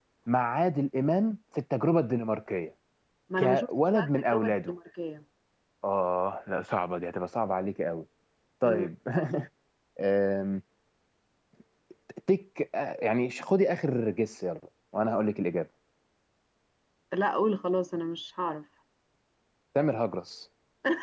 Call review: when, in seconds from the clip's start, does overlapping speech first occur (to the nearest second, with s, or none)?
3 s